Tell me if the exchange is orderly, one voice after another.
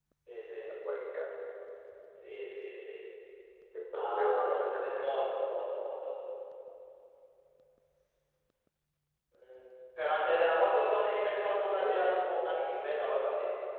No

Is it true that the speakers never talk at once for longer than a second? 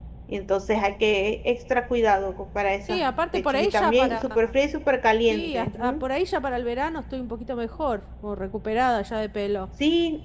No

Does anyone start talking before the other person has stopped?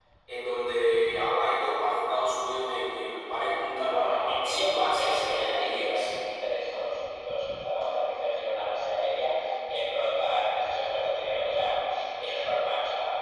Yes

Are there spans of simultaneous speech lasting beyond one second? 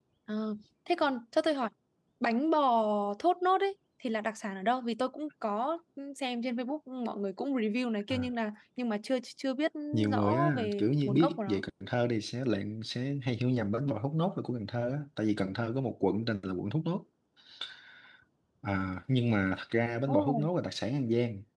Yes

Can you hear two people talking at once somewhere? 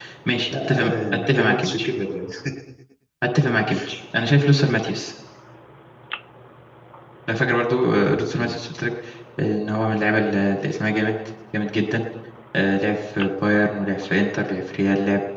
Yes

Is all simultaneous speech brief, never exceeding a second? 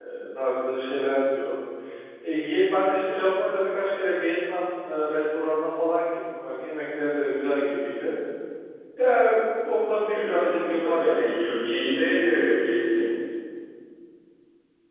No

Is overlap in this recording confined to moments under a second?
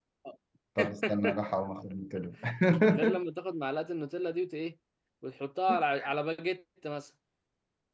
Yes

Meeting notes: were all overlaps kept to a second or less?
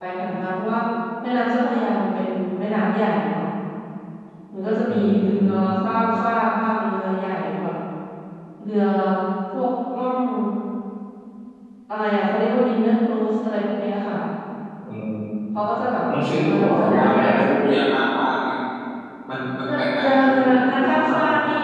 No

